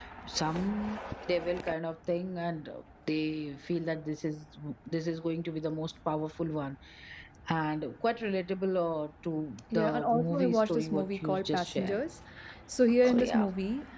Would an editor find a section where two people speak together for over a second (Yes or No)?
Yes